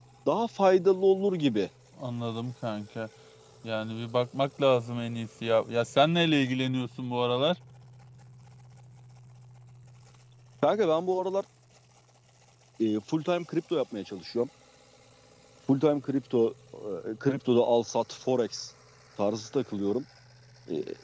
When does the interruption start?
none

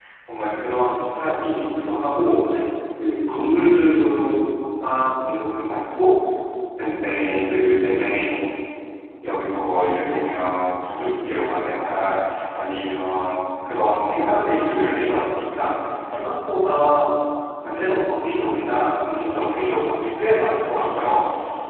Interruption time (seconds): none

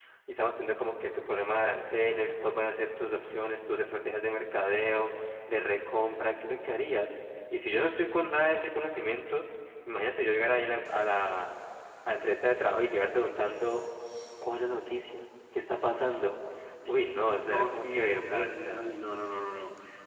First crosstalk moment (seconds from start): 16.9 s

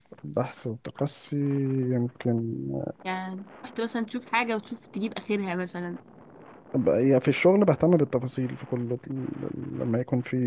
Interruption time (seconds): none

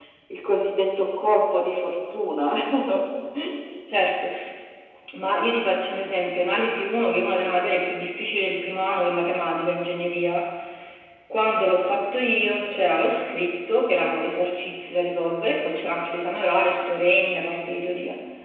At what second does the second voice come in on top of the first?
none

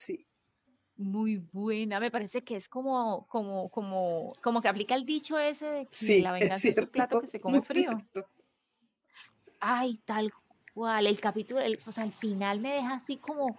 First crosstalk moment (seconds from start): 5.9 s

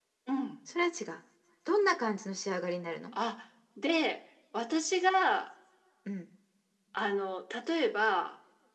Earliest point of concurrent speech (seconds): none

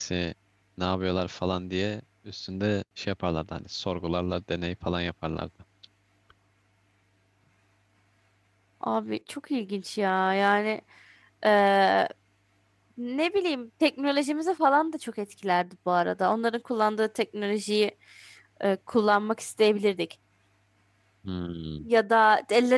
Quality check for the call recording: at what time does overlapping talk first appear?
none

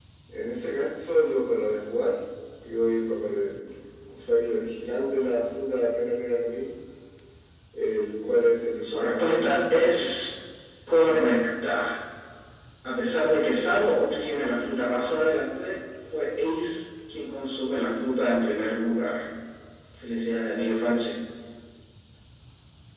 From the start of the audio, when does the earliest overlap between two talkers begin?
8.8 s

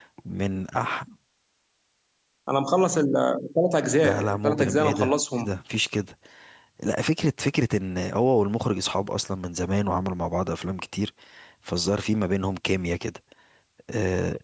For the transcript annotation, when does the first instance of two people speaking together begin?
4.0 s

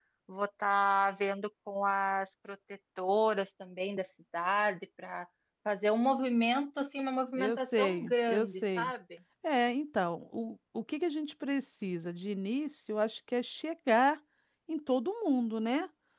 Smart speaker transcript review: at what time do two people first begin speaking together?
7.3 s

